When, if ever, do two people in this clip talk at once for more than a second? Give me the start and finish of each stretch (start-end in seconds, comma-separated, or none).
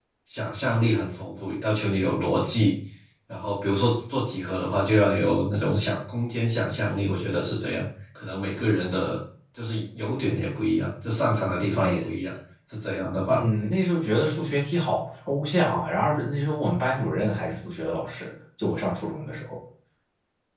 none